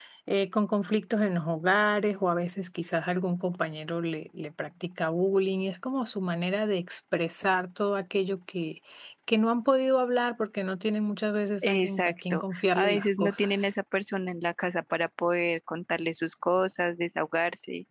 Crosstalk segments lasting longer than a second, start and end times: 11.6-13.7

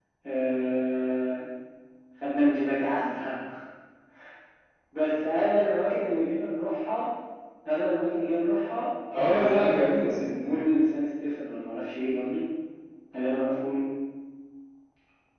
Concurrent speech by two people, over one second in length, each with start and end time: 9.1-10.6

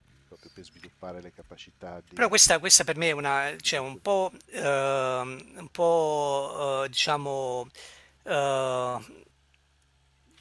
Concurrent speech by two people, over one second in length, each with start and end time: none

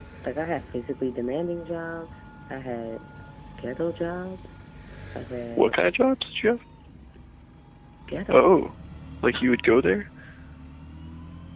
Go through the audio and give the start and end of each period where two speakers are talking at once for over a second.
none

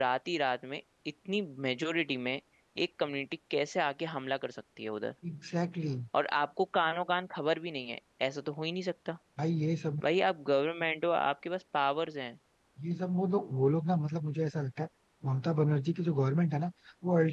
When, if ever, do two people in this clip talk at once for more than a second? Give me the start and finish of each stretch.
none

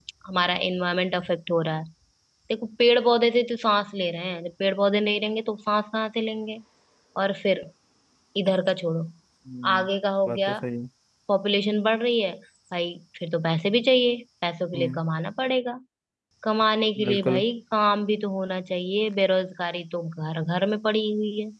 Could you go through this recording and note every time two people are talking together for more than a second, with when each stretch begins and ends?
none

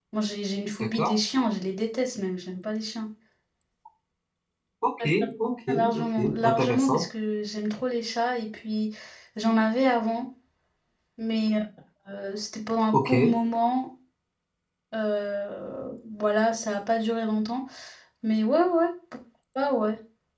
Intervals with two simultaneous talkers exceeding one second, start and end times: 5.7-7.0

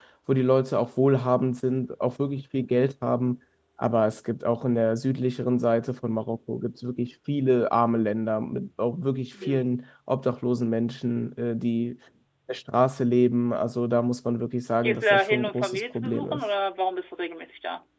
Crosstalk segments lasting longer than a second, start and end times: 14.8-16.4

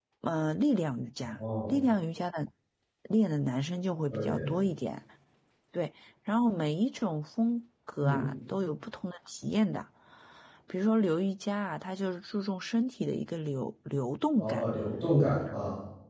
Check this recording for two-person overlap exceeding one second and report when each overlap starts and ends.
none

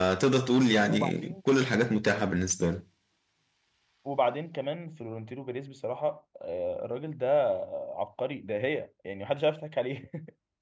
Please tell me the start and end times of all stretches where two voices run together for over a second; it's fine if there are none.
none

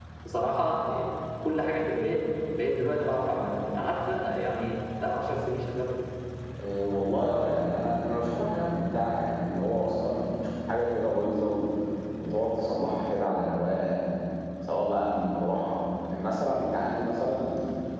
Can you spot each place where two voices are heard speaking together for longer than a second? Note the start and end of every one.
none

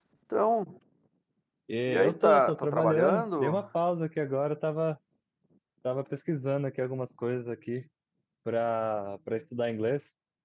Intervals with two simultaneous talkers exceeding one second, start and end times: 1.9-3.6

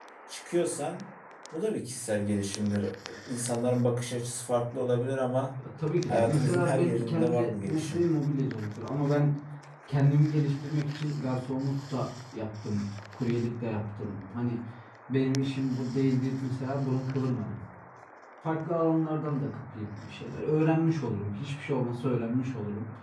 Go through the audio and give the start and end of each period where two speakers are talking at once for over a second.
6.1-8.0

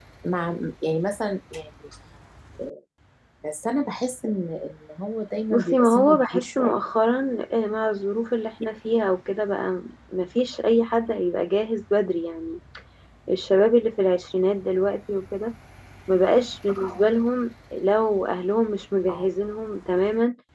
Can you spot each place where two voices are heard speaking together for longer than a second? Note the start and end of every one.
5.5-6.8

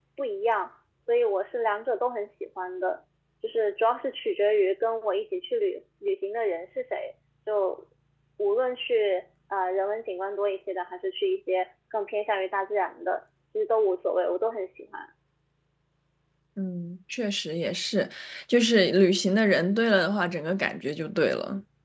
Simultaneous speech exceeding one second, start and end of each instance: none

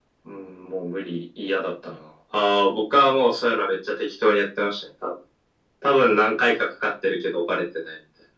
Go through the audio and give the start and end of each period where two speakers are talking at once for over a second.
none

